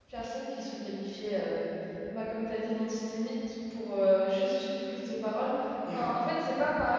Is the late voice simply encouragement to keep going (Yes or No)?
Yes